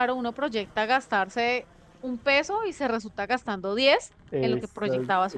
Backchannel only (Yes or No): No